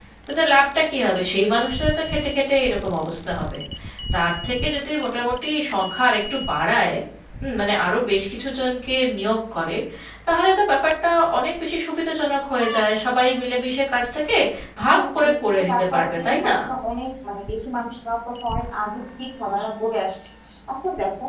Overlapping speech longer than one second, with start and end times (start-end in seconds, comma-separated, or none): 14.9-16.5